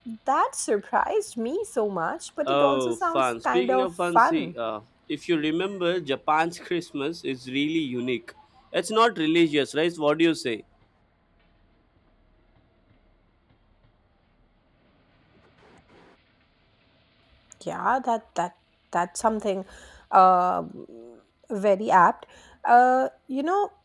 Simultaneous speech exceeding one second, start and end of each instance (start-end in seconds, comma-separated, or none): 2.5-4.5